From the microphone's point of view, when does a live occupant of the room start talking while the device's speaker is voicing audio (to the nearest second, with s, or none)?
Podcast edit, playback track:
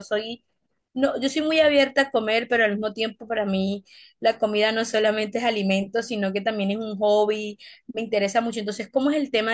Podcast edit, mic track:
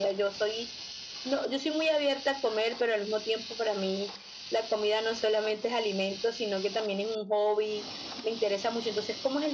none